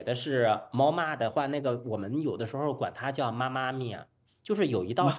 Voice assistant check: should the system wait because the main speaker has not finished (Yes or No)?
Yes